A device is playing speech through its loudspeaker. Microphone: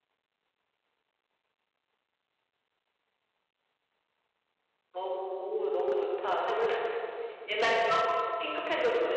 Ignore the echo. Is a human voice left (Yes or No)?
Yes